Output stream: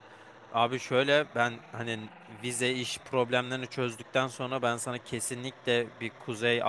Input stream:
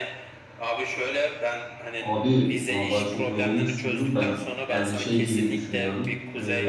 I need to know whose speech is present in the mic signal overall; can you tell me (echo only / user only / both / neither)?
both